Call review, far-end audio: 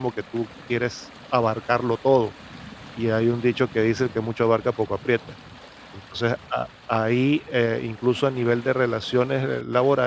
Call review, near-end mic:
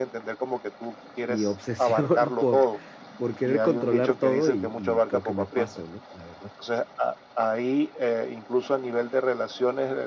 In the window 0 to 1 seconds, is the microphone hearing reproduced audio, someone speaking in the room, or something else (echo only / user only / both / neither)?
echo only